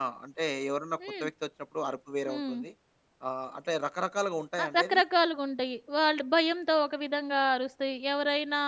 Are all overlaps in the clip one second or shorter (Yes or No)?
Yes